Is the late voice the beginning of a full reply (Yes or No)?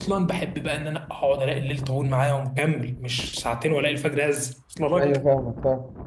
Yes